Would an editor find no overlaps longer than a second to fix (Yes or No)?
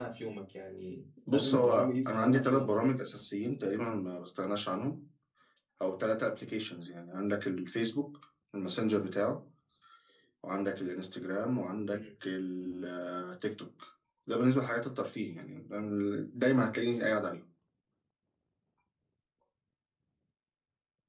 No